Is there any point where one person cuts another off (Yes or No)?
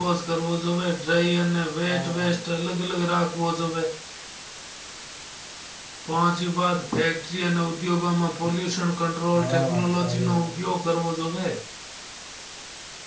Yes